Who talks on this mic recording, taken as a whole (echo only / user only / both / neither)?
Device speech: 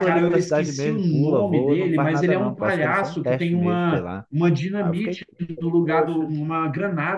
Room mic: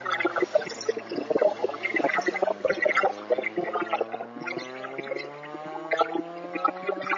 echo only